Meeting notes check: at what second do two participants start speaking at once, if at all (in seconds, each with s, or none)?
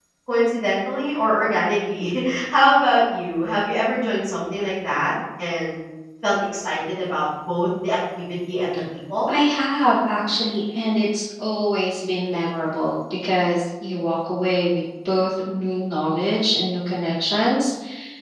none